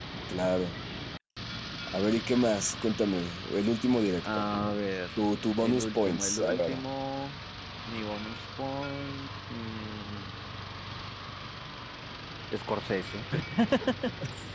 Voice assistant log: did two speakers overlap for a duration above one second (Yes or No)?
Yes